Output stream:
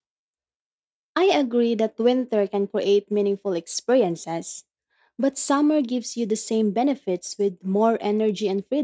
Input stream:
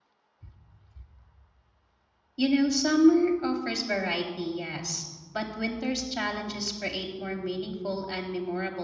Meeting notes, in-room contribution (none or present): present